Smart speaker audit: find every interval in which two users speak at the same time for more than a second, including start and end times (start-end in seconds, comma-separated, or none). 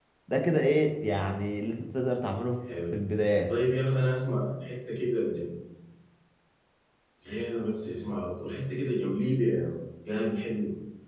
none